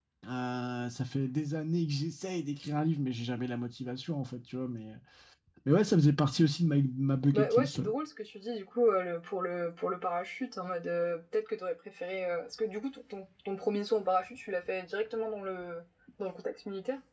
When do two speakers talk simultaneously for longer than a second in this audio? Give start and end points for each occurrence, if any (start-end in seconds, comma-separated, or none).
none